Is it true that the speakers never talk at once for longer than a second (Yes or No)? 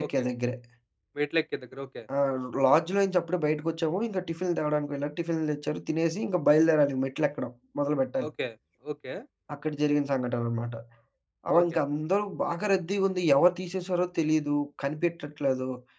Yes